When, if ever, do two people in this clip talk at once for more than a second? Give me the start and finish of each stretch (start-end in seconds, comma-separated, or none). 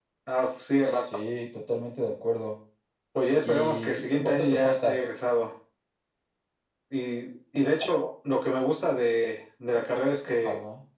3.4-5.0